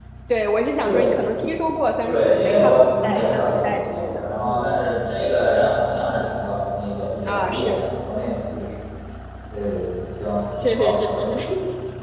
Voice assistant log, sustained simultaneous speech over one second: present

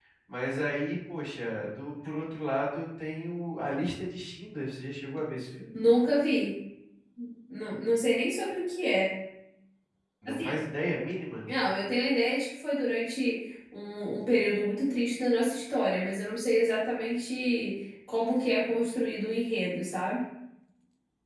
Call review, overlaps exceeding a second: none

